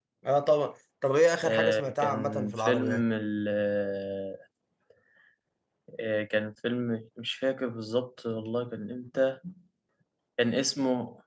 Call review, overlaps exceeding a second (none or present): present